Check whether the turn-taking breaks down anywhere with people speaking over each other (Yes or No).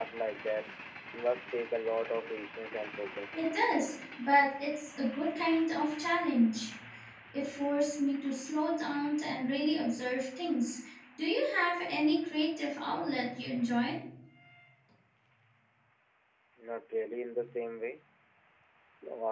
No